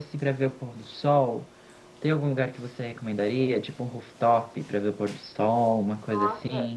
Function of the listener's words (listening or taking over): taking over